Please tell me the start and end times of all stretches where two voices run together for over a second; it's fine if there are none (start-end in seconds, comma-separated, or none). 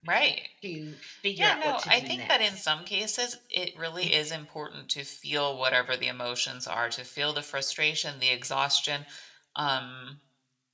1.4-2.6